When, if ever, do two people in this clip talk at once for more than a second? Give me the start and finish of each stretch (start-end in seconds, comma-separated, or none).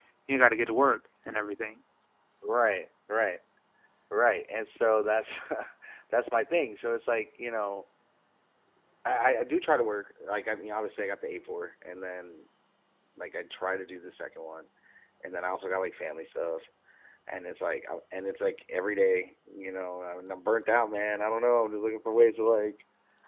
none